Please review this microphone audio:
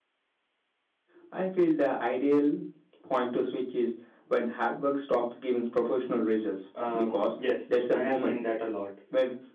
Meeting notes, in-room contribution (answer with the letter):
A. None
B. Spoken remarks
B